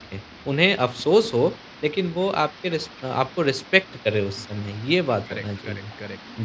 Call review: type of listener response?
taking over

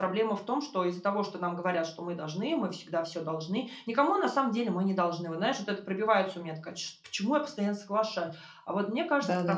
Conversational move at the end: listening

